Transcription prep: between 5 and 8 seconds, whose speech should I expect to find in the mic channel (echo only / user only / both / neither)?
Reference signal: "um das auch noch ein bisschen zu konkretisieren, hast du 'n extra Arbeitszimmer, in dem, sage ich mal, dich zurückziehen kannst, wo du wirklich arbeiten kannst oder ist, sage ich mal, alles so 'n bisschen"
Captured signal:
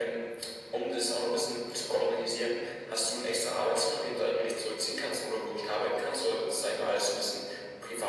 echo only